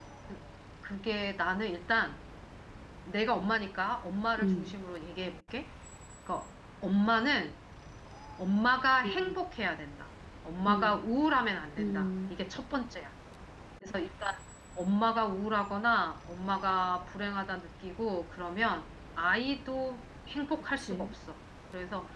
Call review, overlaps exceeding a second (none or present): none